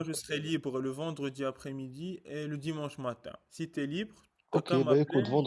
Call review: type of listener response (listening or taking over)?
taking over